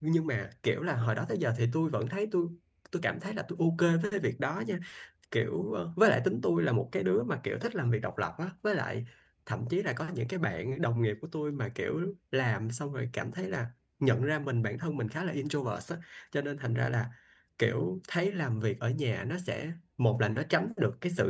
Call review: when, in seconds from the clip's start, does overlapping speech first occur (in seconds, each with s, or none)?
none